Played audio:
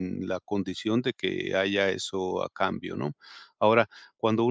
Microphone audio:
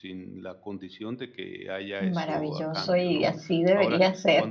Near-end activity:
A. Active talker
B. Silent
A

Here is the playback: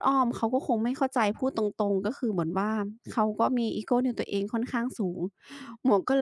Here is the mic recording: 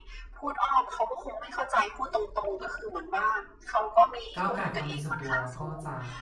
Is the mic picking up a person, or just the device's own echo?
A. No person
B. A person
B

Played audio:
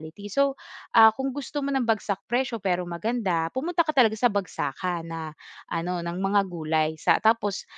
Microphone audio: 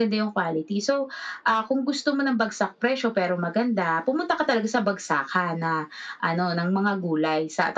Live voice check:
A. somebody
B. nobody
B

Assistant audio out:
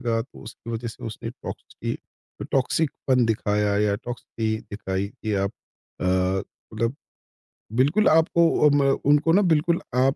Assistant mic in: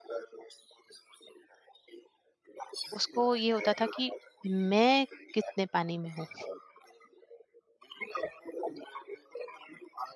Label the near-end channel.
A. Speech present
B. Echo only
A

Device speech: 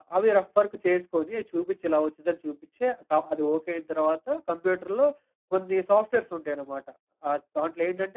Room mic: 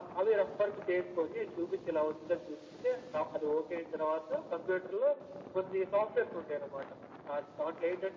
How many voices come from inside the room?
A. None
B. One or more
A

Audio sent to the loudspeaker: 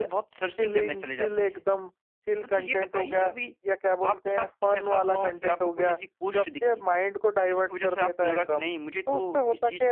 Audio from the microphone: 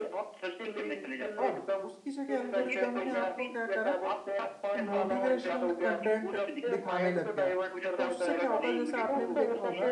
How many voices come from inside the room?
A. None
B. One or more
B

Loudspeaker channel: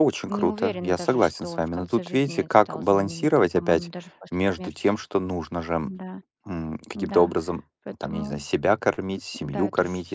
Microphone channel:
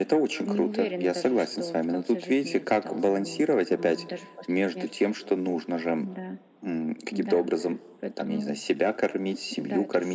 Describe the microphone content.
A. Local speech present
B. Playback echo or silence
B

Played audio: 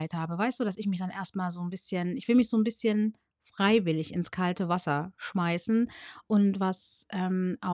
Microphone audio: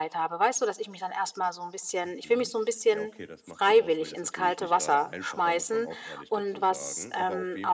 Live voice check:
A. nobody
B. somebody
B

